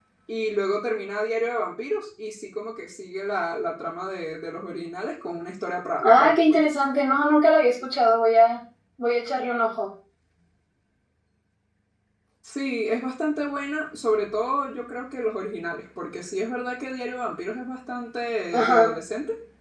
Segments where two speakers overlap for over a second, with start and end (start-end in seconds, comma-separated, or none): none